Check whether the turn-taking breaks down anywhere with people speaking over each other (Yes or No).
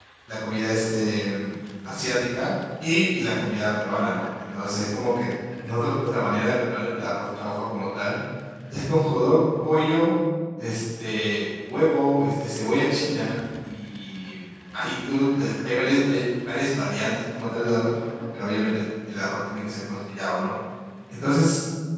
No